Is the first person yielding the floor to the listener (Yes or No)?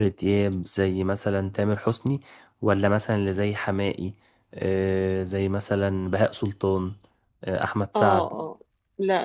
Yes